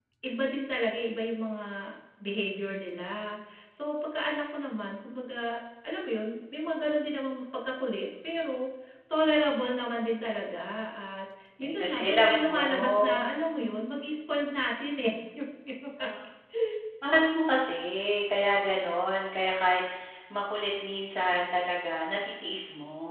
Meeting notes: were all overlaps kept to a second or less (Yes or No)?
No